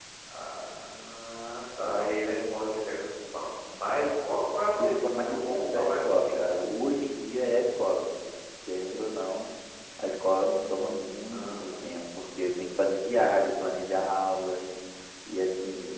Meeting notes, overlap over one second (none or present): present